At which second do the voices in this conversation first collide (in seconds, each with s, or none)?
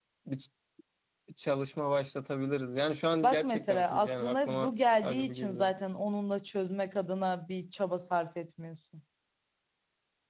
3.2 s